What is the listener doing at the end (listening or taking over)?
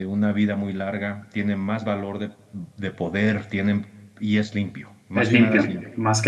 taking over